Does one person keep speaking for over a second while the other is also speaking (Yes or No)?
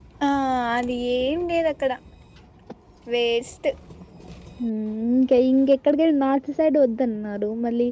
No